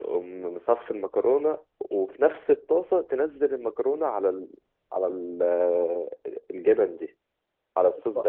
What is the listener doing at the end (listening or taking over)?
taking over